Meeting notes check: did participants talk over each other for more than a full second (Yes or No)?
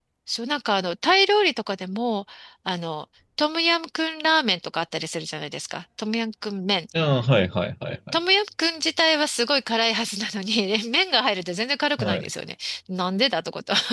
No